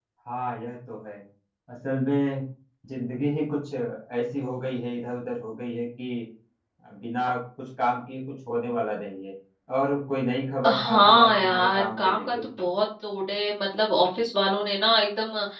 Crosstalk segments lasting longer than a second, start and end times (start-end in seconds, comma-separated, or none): 10.7-12.4